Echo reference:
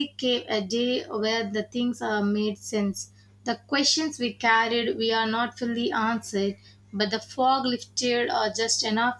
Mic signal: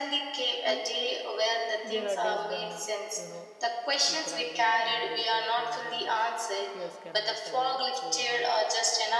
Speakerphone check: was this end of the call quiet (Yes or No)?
No